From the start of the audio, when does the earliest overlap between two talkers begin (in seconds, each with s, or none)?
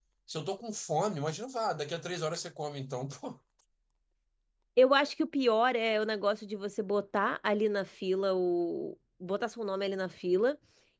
none